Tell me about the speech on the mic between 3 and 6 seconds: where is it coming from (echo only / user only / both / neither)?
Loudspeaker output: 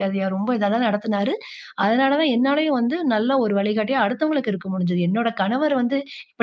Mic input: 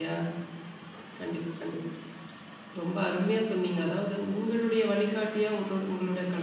user only